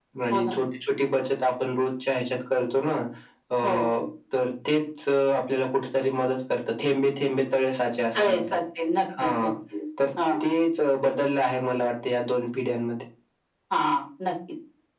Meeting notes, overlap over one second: none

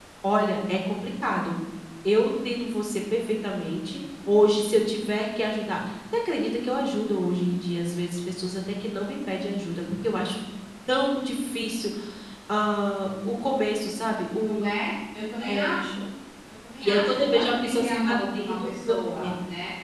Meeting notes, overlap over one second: present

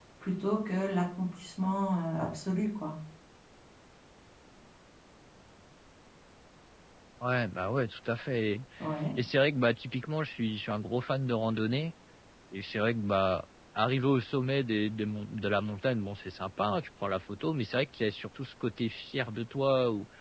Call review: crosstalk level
none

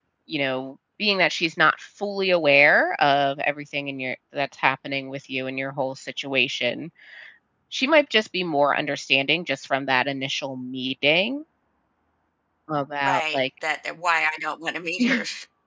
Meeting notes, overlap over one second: none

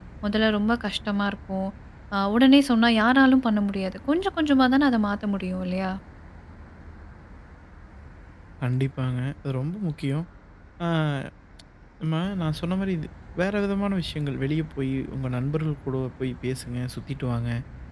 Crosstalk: none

